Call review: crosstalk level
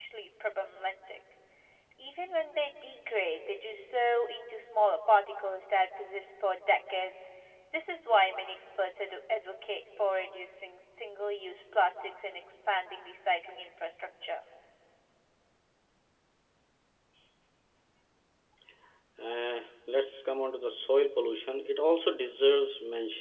none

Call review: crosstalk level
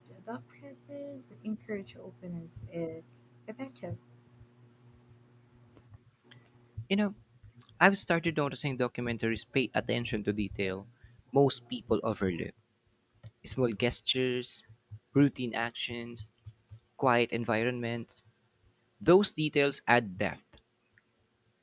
none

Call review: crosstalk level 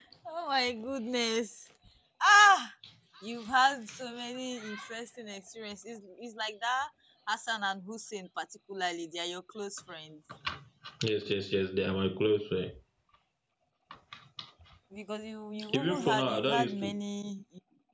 present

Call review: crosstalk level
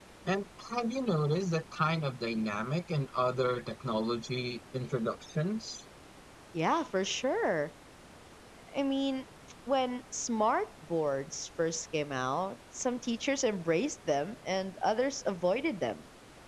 none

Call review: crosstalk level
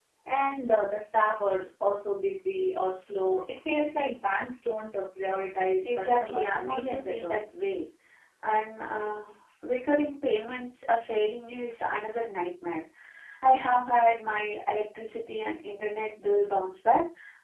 present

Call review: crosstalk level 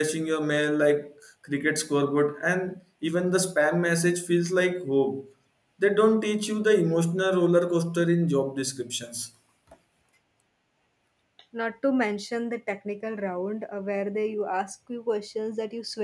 none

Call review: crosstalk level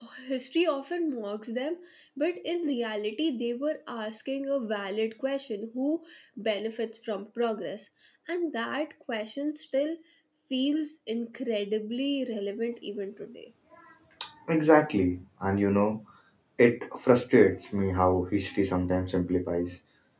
none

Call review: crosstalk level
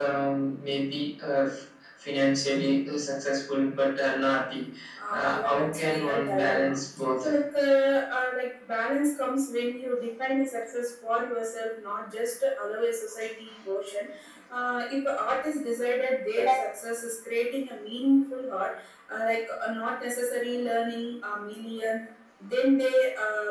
present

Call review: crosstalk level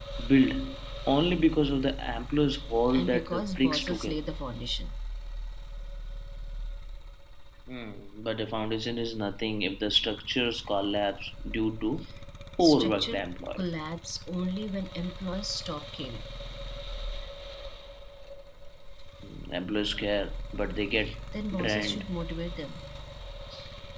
present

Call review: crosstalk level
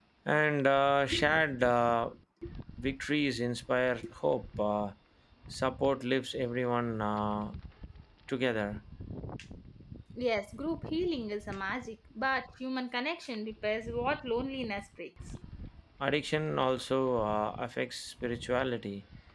none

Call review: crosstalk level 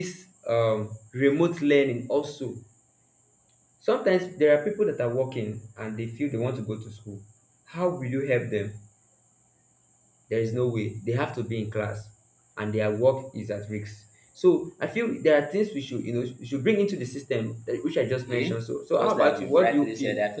present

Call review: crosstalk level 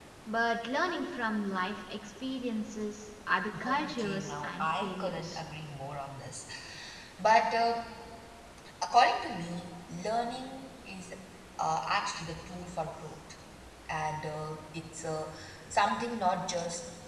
present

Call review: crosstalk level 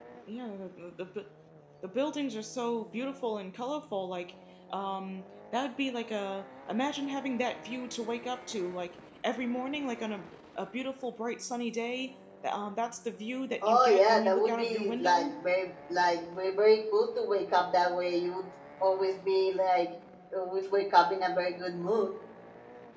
present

